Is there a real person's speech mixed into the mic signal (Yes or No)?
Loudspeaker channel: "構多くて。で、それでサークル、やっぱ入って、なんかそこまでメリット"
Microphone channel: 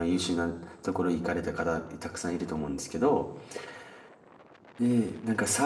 Yes